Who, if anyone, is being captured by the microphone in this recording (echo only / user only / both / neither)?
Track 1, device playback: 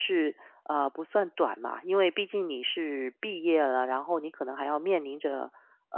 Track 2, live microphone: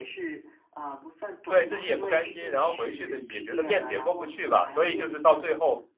both